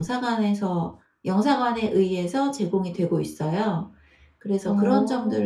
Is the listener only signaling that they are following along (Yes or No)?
Yes